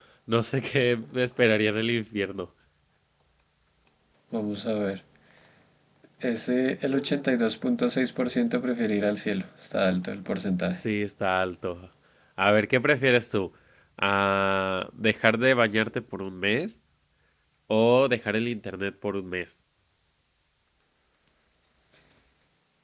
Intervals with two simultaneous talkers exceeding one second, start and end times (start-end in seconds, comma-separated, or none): none